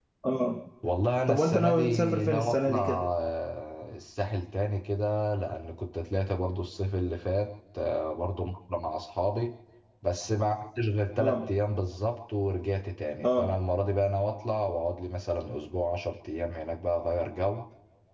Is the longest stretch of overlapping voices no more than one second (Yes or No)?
No